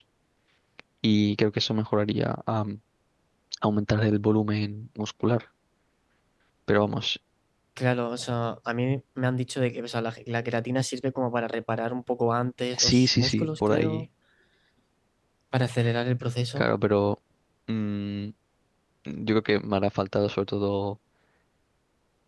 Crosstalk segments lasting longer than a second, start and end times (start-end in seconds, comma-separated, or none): 12.8-14.1